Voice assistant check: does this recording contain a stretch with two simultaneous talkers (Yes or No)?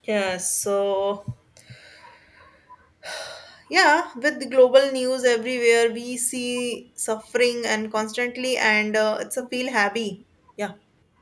No